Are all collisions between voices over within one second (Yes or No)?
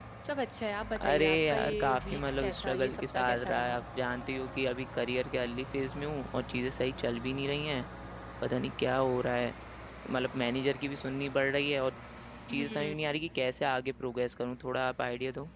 No